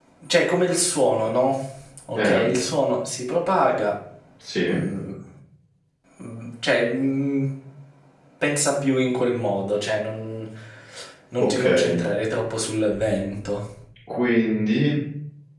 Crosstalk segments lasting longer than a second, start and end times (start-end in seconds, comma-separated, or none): none